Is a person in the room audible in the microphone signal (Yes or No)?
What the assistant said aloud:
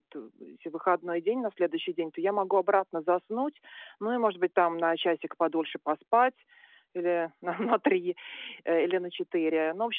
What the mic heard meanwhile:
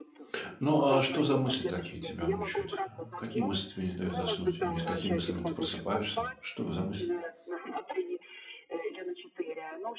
Yes